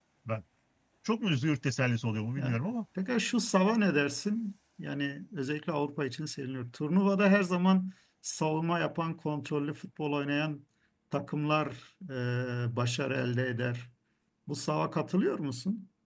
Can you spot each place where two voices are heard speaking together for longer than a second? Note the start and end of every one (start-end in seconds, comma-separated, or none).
none